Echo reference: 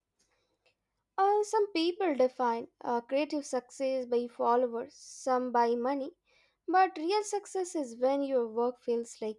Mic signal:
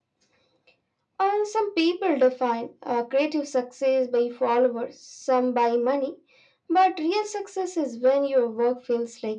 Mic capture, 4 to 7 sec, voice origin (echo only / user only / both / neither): echo only